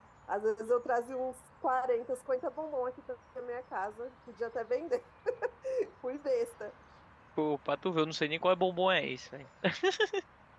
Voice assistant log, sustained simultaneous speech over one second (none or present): none